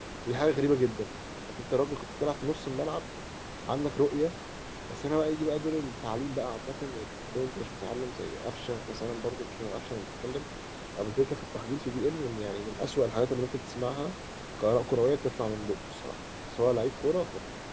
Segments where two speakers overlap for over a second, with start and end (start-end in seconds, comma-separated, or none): none